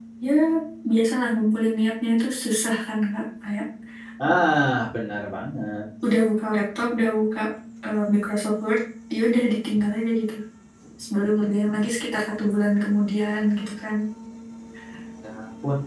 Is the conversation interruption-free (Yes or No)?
Yes